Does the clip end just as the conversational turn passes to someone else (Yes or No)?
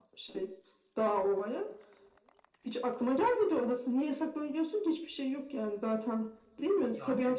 No